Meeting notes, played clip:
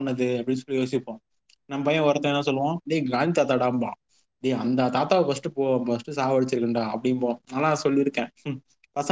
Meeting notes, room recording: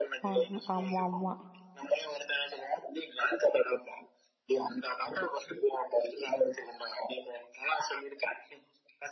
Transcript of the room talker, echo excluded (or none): ஆமா ஆமா ஆமா